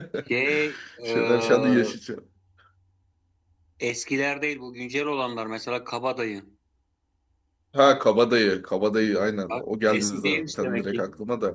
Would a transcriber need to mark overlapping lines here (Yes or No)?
Yes